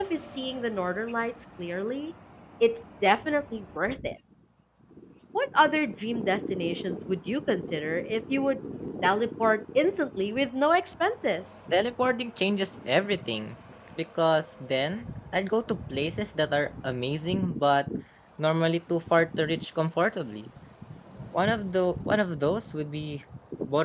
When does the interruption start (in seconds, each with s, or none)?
none